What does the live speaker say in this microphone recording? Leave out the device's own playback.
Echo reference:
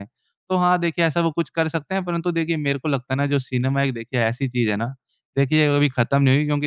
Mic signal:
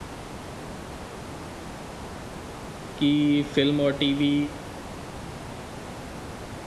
कि फ़िल्म और टीवी

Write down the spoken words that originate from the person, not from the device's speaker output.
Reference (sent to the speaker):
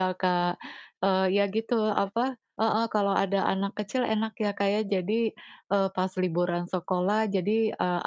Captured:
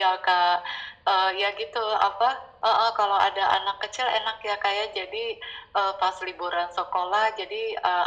none

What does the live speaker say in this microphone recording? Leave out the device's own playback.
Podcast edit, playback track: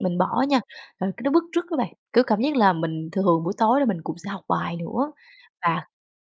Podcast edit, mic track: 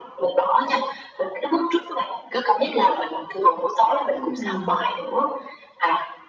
Ừm.

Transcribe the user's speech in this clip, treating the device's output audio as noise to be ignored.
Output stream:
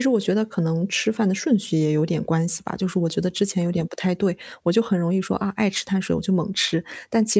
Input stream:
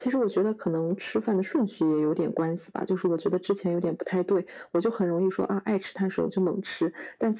none

